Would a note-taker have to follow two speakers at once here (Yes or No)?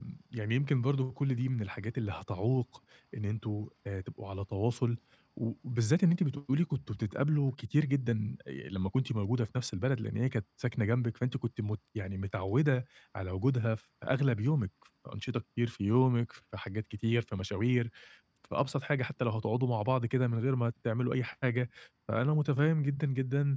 No